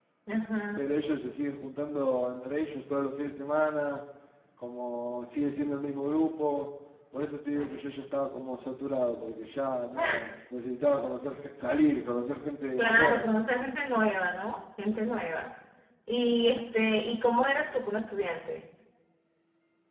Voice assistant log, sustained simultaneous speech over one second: none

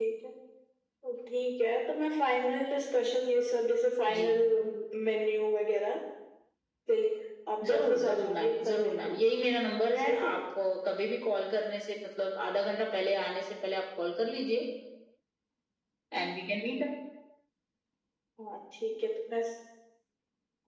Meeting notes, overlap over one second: present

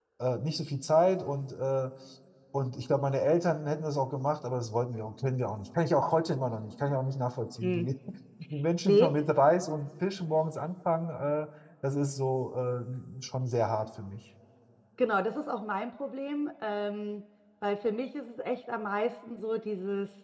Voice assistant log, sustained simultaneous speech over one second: none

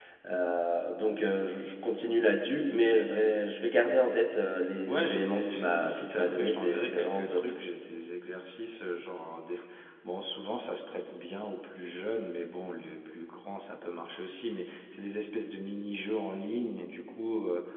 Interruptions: present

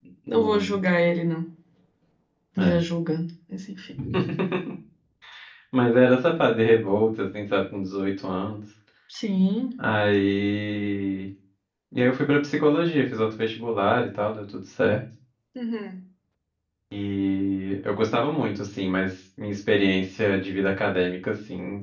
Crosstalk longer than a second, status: none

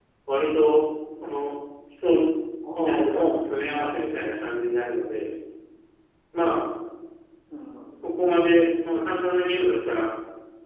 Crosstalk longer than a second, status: present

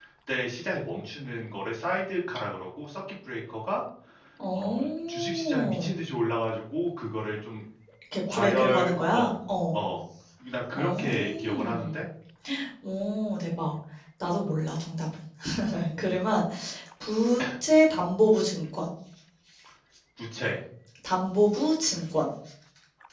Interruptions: present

